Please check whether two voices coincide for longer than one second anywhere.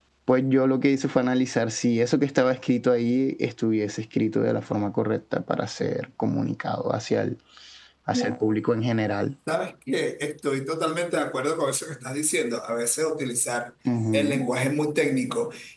No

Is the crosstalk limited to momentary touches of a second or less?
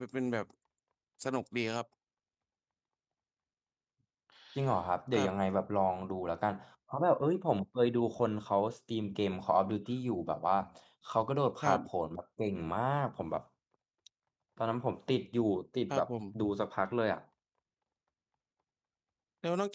Yes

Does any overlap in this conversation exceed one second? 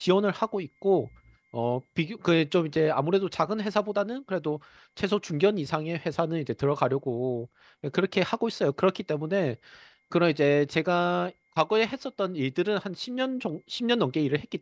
No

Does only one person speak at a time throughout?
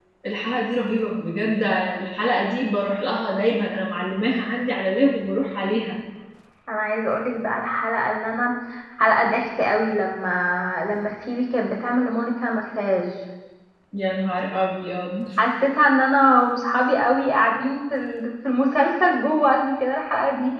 Yes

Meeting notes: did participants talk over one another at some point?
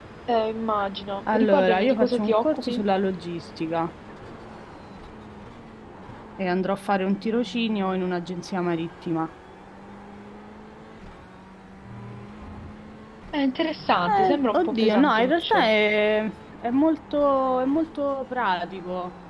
Yes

